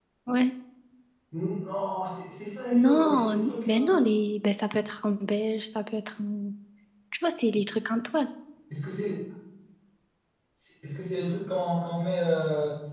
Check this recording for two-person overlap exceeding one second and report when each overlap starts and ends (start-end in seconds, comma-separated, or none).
2.7-4.0